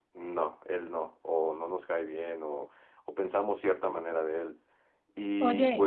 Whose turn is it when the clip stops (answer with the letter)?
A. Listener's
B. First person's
A